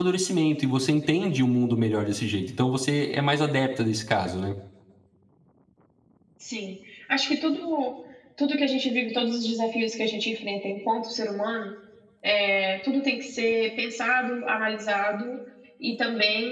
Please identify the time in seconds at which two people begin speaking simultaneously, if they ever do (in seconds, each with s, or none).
none